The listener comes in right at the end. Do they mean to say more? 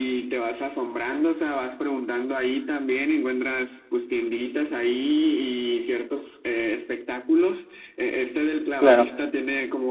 No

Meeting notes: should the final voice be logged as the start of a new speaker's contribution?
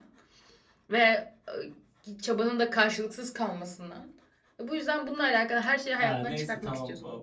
Yes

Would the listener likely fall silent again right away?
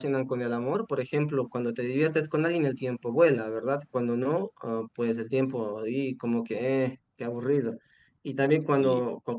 Yes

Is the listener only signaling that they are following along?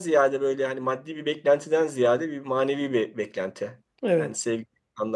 Yes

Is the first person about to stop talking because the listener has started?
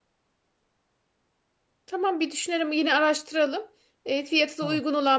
No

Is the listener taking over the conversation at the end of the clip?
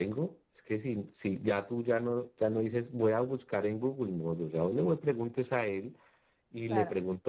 No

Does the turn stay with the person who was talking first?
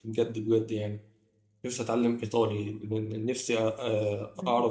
Yes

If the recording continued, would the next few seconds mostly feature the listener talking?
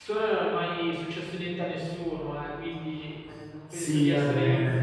Yes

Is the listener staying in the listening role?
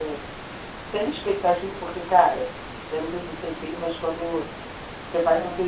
Yes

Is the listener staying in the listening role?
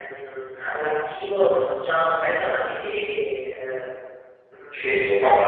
No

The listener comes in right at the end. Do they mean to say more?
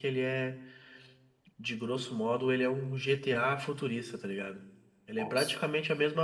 No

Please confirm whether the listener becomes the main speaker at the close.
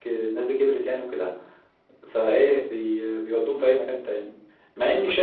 No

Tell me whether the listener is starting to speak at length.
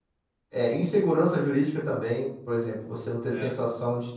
No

